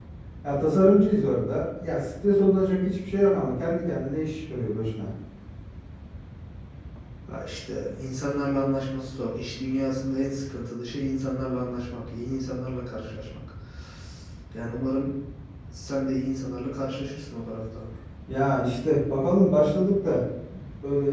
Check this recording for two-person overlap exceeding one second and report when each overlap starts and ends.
none

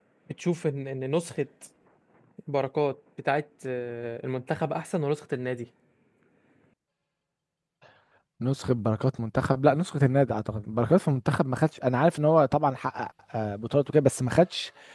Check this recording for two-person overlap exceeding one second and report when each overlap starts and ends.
none

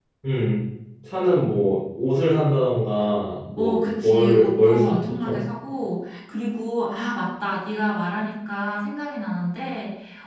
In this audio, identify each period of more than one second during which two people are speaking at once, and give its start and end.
3.6-5.4

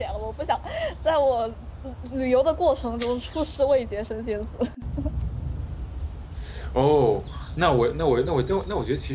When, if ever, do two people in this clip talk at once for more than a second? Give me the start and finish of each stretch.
none

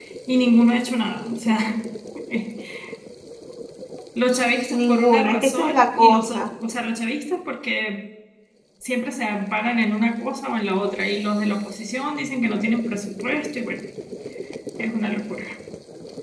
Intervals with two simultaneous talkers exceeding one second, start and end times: 4.7-6.5

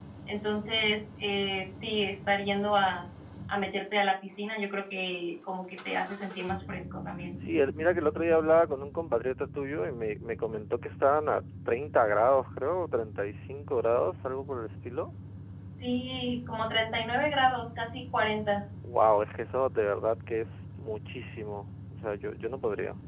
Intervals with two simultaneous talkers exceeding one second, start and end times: none

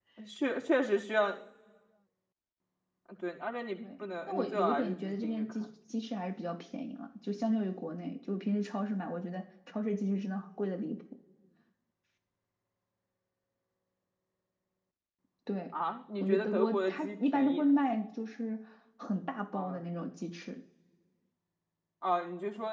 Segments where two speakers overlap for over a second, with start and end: 4.0-5.7, 16.2-17.6

